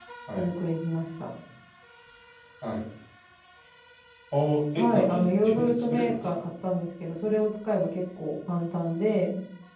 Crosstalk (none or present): present